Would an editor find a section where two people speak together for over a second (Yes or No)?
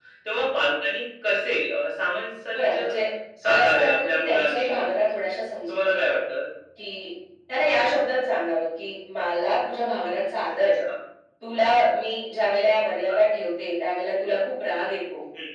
Yes